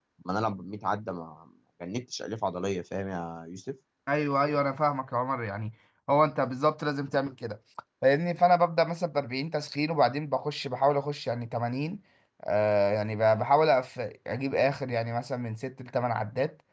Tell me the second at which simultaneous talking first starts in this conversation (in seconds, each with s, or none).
none